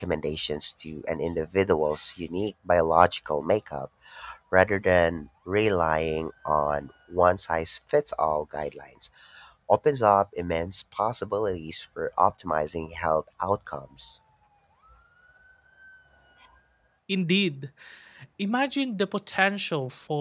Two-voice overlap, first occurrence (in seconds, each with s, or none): none